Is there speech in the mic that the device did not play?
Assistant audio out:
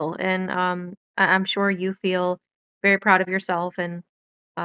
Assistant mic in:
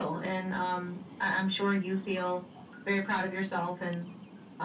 No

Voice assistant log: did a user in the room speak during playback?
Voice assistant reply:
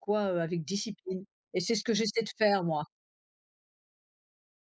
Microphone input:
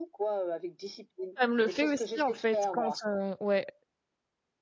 Yes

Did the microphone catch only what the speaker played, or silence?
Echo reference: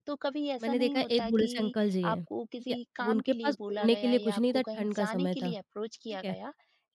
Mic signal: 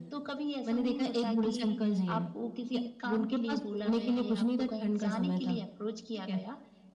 Yes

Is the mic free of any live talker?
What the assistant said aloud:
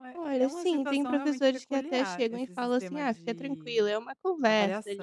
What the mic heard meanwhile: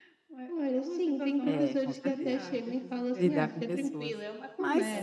No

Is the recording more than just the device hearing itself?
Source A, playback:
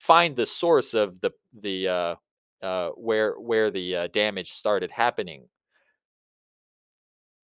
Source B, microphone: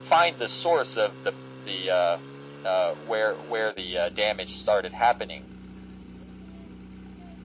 No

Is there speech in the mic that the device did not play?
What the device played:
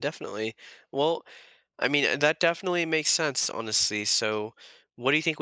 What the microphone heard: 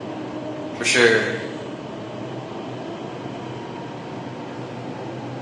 Yes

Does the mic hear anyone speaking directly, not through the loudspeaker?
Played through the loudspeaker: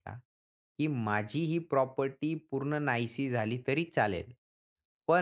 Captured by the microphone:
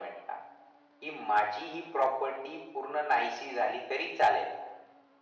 No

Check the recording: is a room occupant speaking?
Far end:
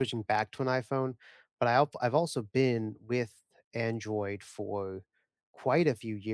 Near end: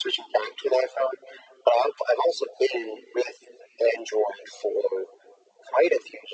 No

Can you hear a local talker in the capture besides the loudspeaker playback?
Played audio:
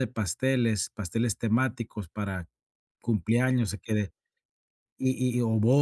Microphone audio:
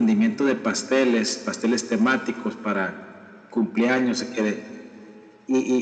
No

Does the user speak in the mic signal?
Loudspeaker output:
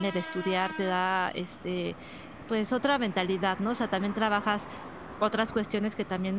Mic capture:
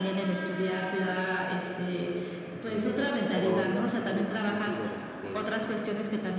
Yes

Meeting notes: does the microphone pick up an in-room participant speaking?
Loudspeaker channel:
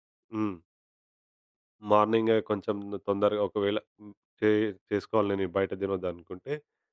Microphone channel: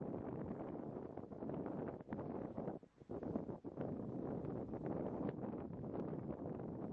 No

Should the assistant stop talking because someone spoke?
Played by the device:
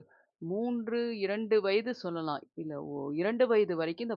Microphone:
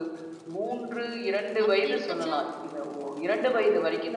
Yes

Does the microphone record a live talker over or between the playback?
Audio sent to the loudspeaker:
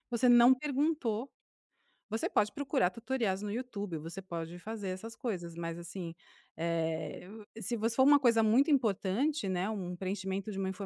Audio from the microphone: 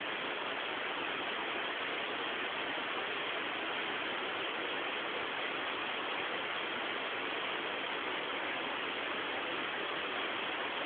No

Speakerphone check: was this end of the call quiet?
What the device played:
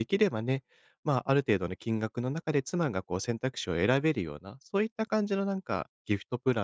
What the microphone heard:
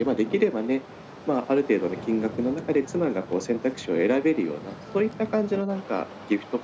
Yes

